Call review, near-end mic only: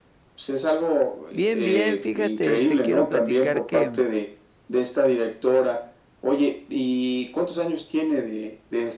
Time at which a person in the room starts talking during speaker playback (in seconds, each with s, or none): 1.3 s